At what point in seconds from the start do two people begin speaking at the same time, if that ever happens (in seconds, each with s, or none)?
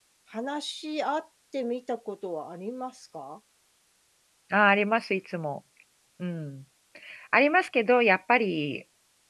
none